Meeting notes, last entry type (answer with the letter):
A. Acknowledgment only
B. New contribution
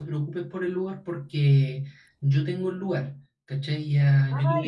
A